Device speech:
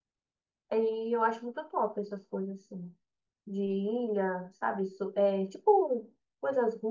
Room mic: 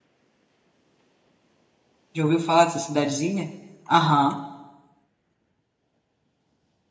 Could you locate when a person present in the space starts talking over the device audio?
2.1 s

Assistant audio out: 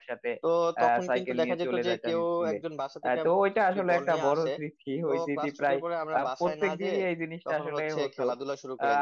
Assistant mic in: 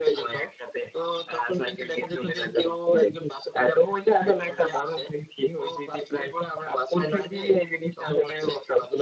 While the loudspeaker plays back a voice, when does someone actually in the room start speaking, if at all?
none

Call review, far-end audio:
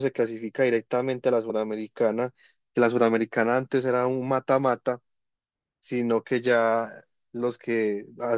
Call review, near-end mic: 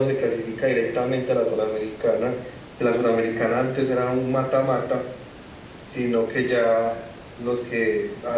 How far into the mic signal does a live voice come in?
none

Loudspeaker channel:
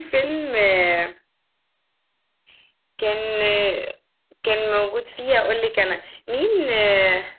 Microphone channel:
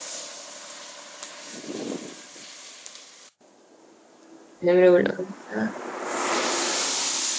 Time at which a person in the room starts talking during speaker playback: 4.6 s

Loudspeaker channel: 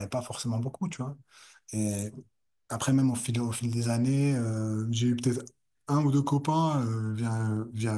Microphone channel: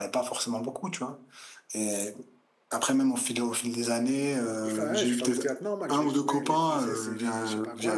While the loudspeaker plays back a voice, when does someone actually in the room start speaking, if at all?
4.7 s

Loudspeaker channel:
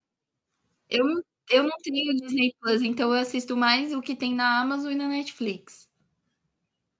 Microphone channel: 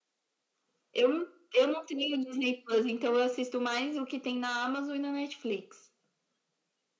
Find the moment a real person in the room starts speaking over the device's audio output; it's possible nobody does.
none

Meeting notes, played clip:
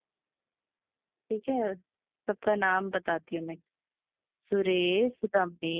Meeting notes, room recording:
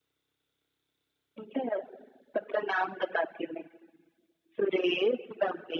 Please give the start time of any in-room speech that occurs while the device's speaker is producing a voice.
none

